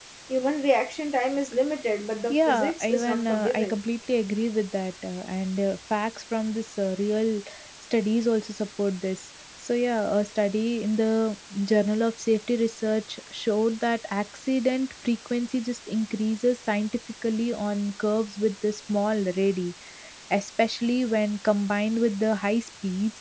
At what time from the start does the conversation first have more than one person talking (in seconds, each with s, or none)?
2.3 s